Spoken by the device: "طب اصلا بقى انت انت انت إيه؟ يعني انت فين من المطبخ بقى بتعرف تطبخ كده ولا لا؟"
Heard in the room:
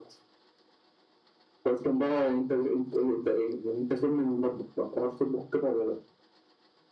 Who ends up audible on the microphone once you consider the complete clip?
echo only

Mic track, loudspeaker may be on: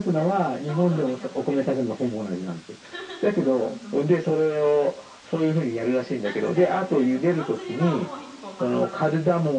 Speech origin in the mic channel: both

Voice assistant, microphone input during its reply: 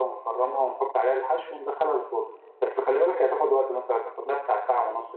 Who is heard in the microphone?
echo only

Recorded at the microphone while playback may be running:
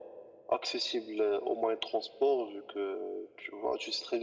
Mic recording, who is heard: echo only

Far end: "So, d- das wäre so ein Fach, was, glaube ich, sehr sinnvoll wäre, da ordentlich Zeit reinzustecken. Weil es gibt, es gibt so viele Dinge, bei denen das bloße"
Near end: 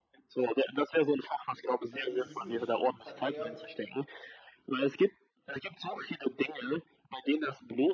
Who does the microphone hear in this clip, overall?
both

